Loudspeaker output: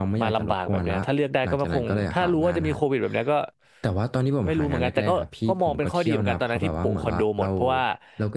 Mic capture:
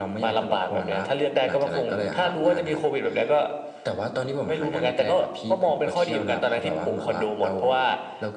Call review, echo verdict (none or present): present